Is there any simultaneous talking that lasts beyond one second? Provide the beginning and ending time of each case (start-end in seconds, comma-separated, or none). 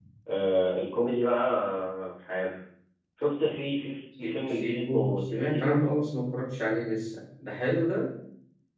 4.2-5.8